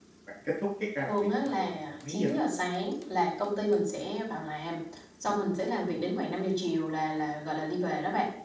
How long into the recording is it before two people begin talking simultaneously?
1 s

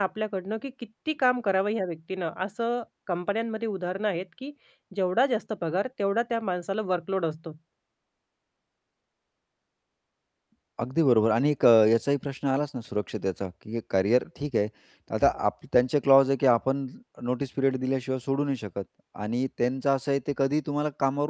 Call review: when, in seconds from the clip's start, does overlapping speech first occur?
none

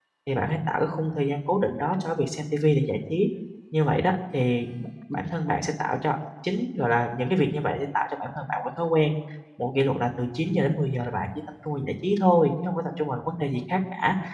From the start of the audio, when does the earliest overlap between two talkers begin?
none

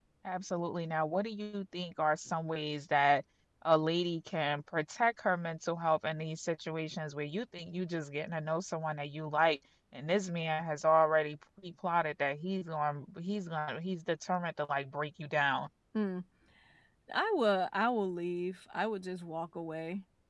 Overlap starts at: none

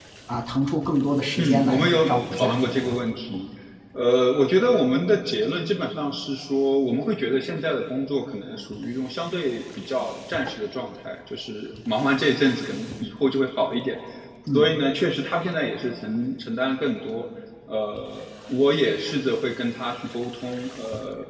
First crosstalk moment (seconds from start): 1 s

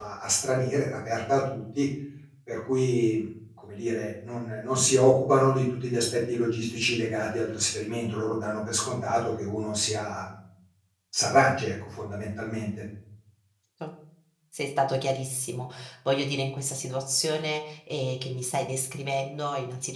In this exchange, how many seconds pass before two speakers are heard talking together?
none

